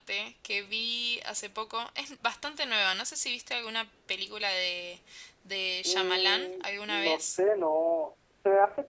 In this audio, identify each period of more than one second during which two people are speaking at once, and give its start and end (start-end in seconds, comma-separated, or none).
5.8-7.4